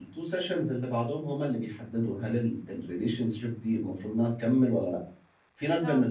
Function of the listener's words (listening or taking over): listening